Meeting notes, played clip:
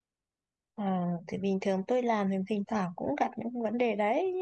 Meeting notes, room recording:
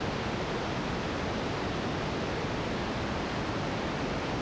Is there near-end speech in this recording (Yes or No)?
No